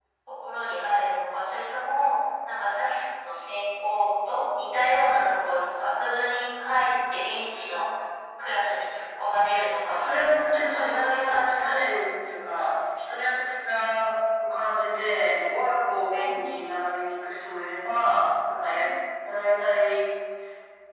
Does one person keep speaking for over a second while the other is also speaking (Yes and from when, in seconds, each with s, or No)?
Yes, from 9.9 s